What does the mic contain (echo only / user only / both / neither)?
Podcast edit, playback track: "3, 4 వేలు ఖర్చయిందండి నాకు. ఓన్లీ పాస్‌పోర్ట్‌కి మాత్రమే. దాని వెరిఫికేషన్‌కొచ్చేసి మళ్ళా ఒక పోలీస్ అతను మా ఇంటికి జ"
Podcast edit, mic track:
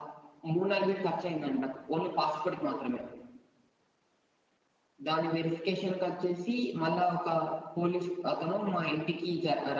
echo only